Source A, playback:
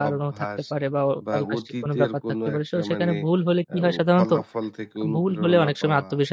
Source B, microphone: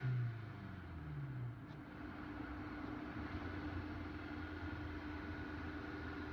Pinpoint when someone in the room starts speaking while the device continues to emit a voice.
none

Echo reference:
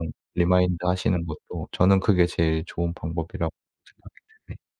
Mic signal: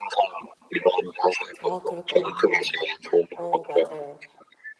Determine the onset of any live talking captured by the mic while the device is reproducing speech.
1.6 s

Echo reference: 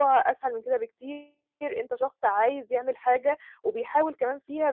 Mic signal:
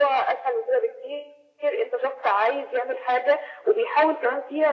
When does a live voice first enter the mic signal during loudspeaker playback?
none

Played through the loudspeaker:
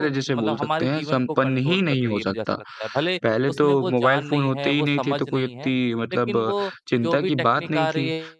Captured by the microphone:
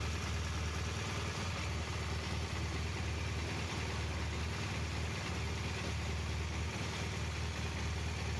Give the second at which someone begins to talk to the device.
none

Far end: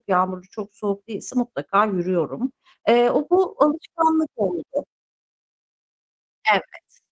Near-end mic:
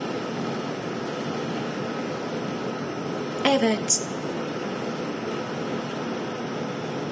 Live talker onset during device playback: 3.4 s

